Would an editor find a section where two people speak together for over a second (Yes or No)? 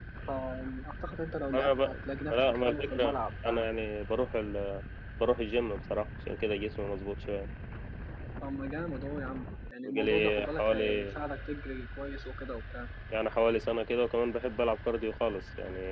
Yes